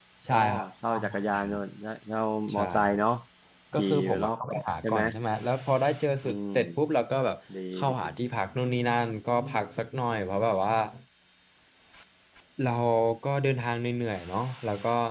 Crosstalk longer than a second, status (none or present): present